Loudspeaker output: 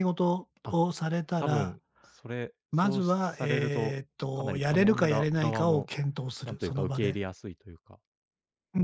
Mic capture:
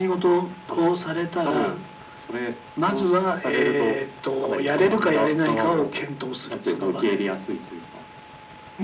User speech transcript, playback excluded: none

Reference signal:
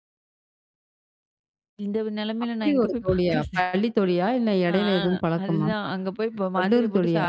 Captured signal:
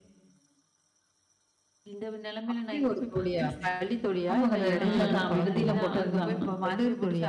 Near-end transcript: ஆமாங்க. அந்த இதுல தான் விடுதியில போட்டது தான்.

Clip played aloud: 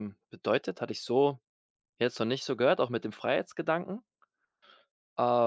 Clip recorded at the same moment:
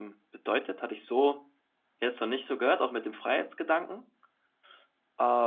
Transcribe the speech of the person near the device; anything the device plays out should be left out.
none

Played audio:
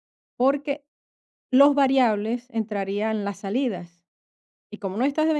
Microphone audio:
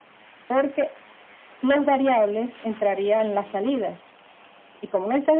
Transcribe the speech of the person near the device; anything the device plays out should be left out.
none

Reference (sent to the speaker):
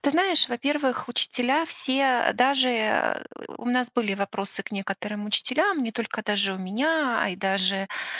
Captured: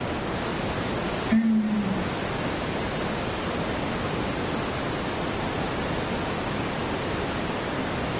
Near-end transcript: М.

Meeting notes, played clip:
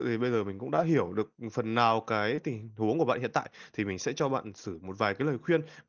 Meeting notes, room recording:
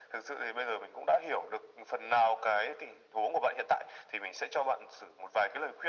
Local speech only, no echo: none

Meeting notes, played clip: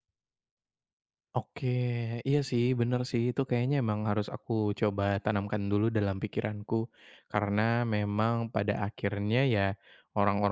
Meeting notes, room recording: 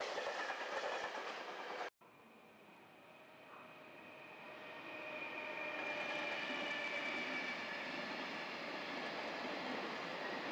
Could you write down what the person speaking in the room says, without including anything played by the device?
none

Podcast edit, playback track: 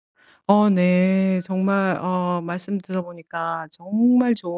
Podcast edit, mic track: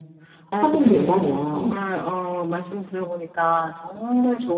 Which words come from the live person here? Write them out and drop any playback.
확인된다면

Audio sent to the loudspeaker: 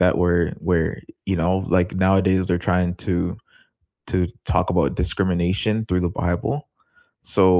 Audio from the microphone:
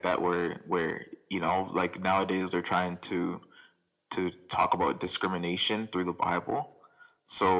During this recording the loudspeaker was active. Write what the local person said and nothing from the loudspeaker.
none

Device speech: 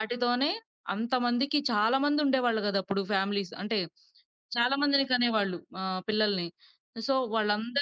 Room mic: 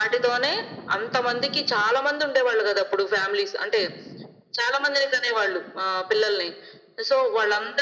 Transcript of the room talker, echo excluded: none

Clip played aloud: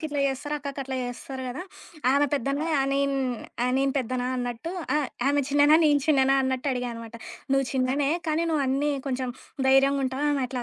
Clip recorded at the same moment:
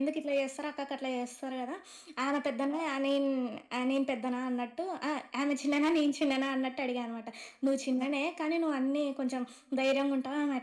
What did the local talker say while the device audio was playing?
none

